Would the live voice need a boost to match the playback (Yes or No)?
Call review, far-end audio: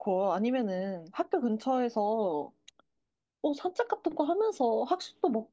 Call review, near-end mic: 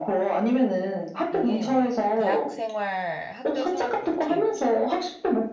Yes